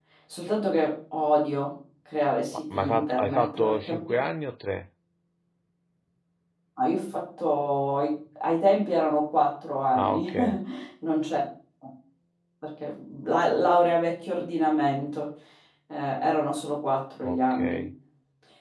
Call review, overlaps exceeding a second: present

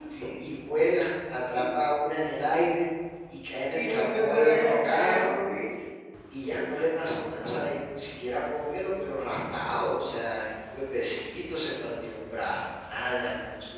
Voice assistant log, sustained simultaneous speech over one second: present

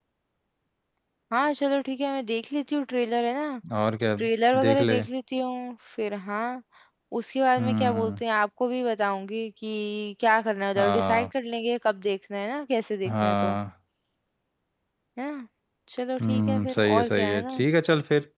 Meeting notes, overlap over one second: present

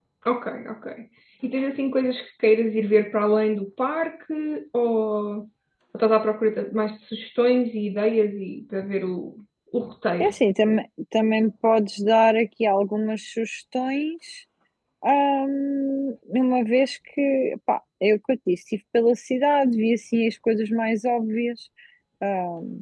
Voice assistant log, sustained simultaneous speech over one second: none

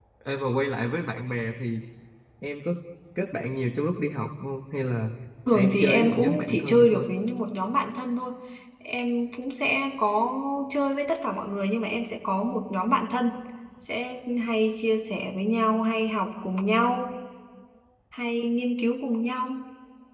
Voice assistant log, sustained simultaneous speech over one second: present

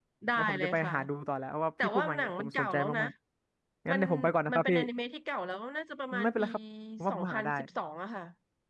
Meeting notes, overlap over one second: present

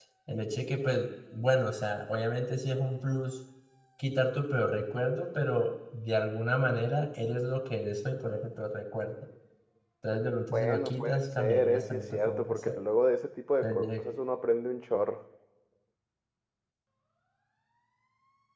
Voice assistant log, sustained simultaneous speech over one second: present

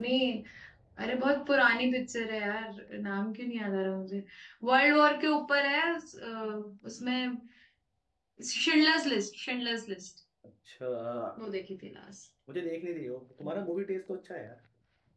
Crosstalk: none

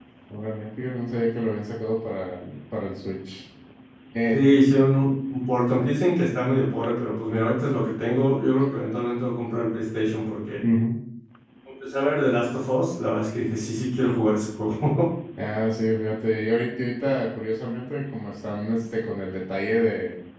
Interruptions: none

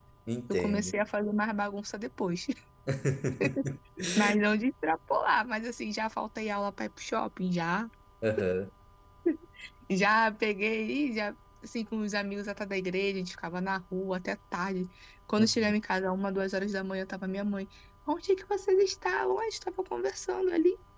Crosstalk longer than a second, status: none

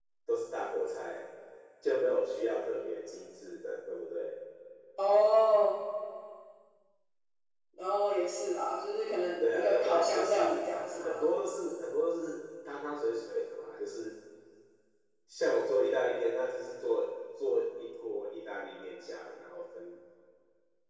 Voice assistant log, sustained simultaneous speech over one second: present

